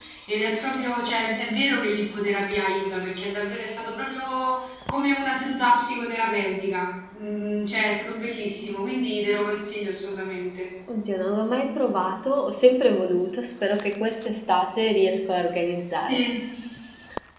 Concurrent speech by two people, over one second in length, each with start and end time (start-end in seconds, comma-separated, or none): none